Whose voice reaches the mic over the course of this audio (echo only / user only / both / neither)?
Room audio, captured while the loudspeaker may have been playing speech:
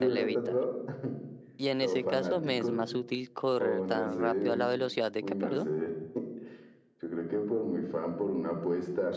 both